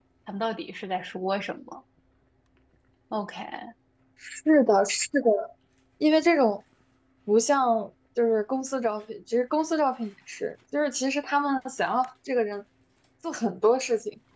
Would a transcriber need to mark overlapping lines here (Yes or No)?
No